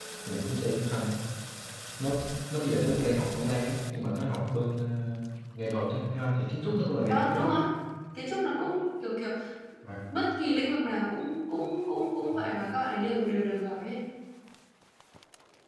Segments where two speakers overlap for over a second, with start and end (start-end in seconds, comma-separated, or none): none